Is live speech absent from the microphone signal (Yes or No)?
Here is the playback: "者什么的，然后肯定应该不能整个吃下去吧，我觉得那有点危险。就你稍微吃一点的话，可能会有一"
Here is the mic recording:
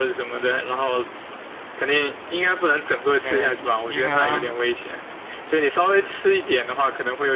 No